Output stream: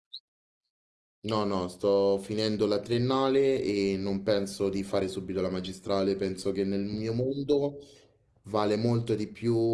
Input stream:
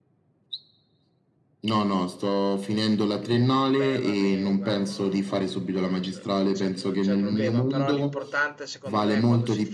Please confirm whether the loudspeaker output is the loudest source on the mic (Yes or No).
Yes